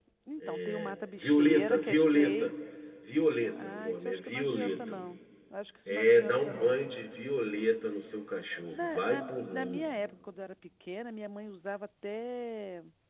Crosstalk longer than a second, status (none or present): present